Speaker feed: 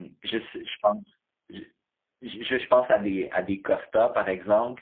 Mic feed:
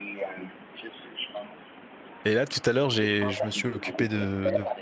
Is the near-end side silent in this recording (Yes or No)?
No